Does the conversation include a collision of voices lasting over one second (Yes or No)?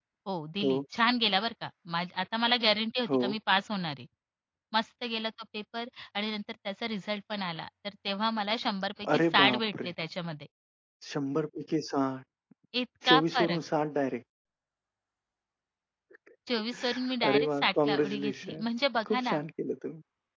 Yes